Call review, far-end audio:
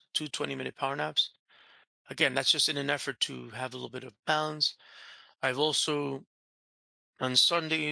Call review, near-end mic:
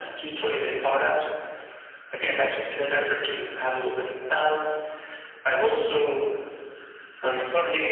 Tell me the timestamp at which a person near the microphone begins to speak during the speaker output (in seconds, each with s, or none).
none